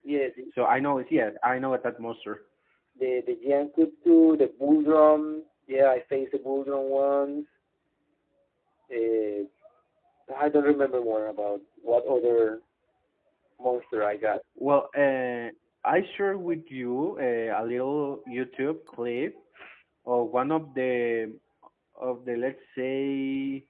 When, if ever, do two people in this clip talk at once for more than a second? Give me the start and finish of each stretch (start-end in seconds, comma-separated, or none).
none